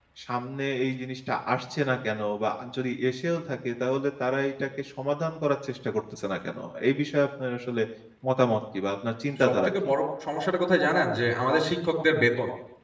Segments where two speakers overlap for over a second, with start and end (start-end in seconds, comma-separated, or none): none